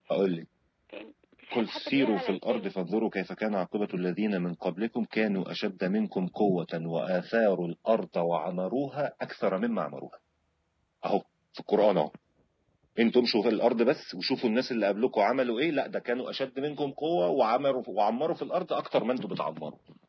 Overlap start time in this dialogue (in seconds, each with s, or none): 1.5 s